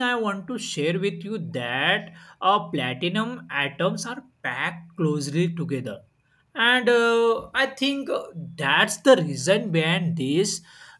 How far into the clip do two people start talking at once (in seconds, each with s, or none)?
none